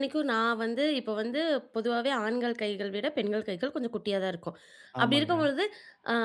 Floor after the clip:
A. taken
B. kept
B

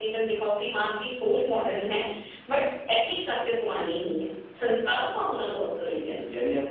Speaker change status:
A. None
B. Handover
B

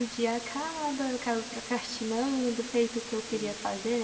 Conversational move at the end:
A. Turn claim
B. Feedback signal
B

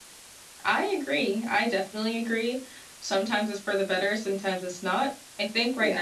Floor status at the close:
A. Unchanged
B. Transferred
A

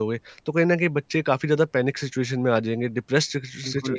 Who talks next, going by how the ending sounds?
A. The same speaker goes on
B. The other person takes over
B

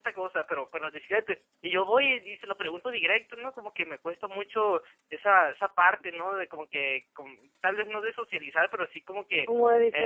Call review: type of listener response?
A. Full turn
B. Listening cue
A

